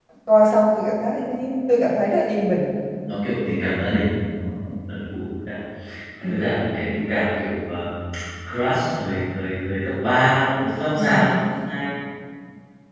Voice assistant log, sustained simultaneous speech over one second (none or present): none